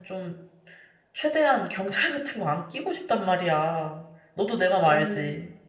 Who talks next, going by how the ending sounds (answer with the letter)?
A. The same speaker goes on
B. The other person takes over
B